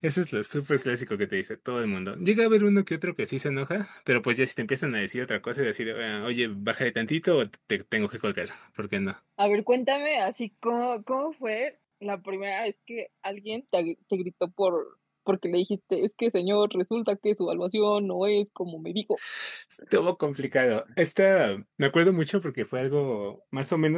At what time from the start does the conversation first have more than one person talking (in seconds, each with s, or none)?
none